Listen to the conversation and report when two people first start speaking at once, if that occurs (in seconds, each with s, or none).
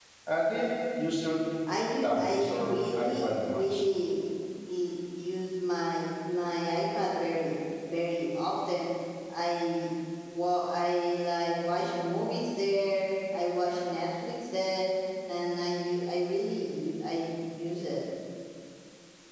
2.0 s